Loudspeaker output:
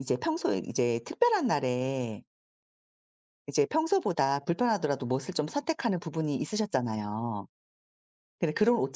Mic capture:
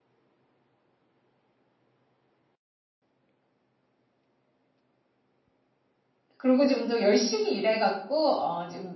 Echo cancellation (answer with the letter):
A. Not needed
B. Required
A